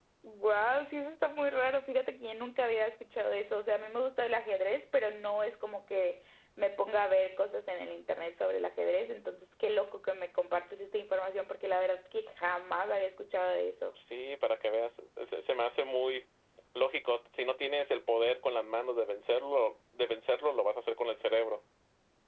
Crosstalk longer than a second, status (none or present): none